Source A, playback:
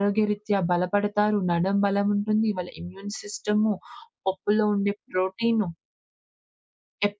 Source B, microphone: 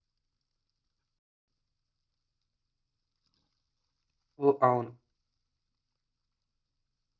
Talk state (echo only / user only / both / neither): user only